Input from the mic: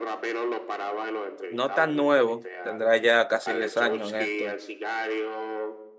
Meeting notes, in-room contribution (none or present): present